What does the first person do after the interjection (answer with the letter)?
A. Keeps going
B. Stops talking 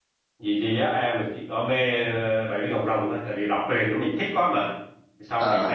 A